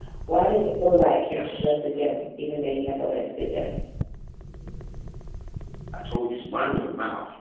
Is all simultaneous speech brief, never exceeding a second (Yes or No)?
Yes